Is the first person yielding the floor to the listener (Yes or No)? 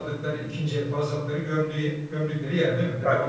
Yes